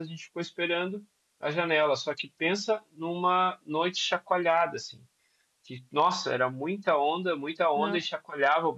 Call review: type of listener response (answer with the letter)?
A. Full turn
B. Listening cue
B